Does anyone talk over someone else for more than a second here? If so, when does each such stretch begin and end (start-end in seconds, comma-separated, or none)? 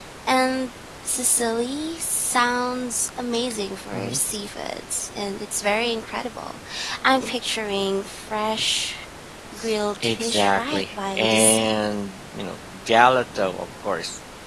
10.0-11.8